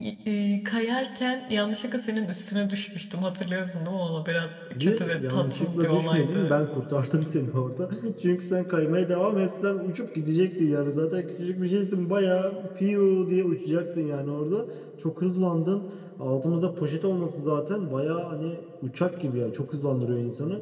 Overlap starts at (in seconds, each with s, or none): 4.7 s